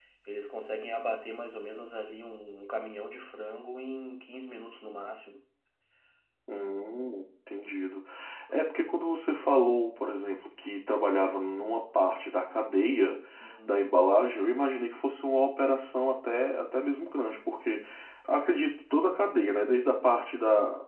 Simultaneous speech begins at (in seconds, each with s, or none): none